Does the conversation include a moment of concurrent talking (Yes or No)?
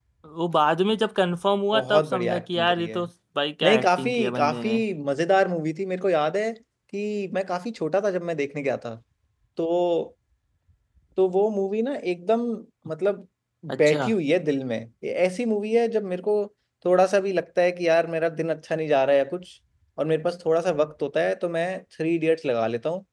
Yes